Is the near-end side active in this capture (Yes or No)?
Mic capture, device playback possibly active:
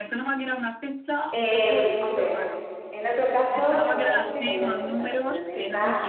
Yes